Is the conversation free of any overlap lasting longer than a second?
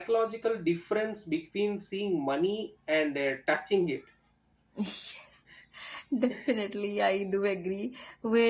Yes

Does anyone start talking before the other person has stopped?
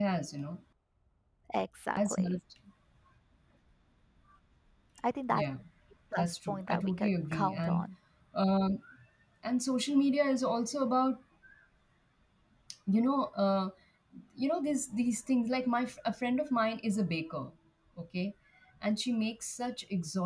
Yes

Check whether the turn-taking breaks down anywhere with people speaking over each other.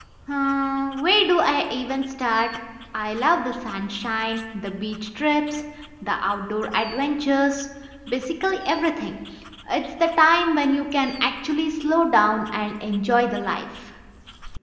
No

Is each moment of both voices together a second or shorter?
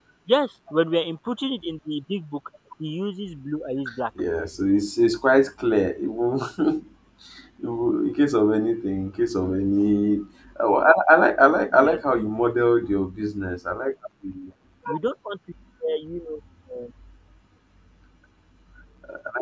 Yes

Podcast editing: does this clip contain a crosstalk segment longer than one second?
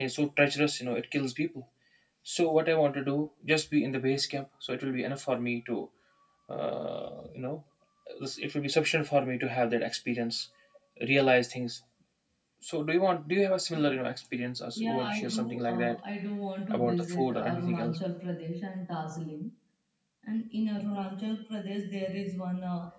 Yes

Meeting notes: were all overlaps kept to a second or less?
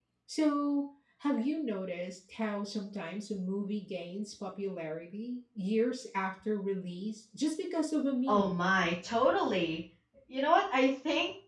Yes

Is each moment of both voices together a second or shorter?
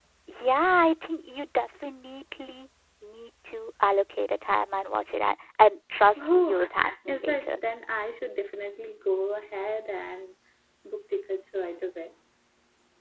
No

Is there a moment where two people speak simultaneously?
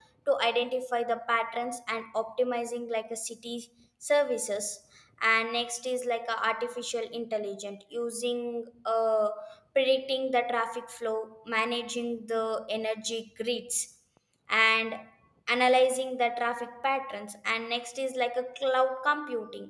No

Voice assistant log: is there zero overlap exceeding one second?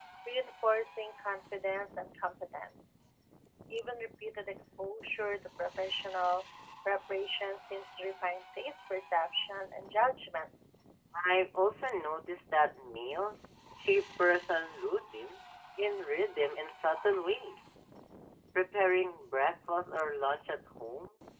Yes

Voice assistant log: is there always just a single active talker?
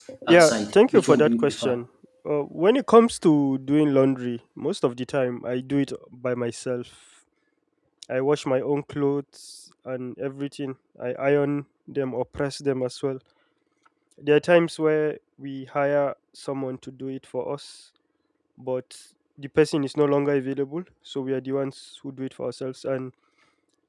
No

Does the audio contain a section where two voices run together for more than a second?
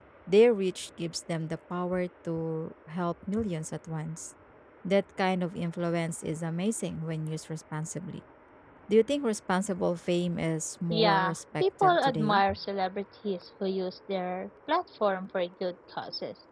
Yes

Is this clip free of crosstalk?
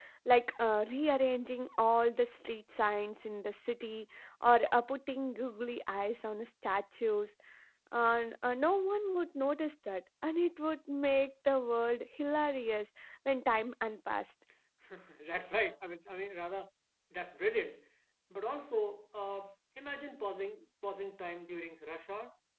Yes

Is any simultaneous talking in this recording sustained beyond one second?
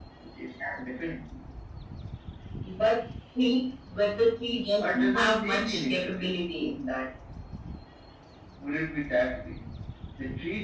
Yes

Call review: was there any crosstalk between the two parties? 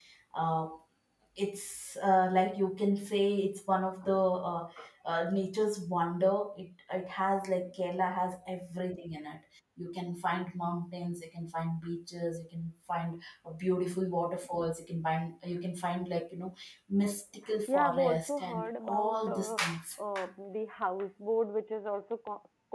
Yes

